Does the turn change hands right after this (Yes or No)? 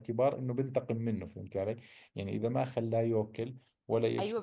Yes